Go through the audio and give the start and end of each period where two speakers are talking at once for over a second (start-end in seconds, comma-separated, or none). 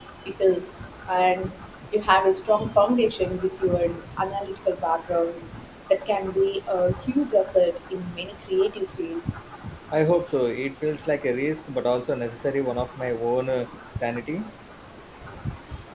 none